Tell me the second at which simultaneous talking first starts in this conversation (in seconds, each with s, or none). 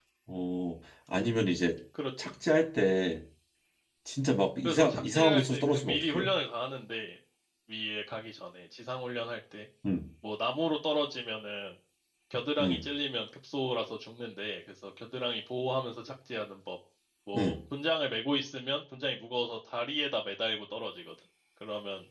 4.6 s